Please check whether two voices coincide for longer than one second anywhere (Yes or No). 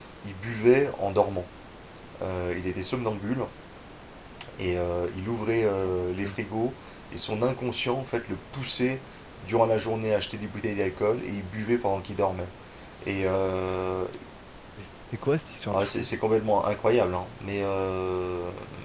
No